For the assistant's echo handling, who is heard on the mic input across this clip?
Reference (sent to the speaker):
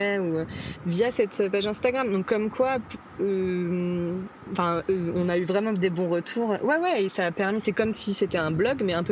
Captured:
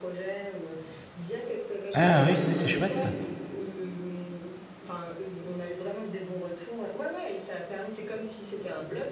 both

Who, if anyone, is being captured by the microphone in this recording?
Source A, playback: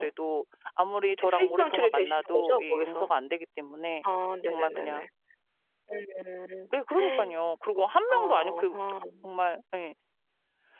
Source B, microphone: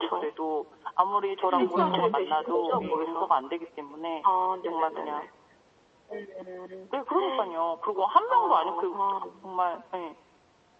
both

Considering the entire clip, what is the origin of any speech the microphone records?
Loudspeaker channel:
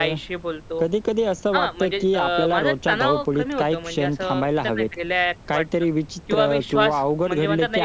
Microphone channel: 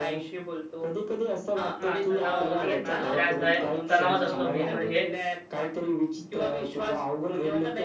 both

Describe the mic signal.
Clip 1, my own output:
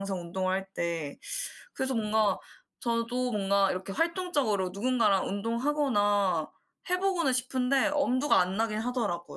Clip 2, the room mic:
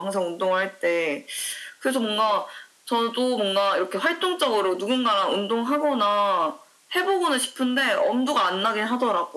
echo only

